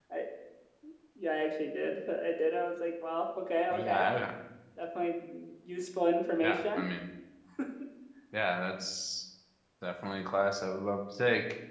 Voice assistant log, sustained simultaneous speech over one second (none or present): none